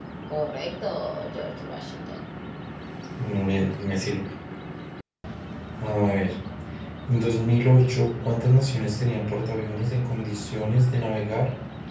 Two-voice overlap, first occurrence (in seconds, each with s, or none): none